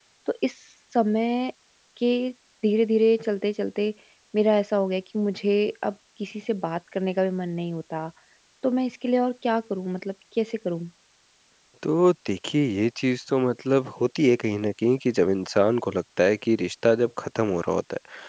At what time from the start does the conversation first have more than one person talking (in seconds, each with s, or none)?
none